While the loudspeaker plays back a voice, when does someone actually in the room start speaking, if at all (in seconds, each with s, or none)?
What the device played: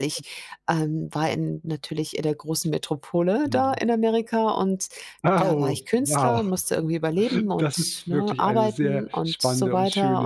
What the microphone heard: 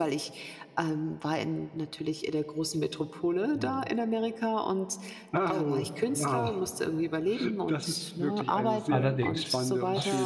8.9 s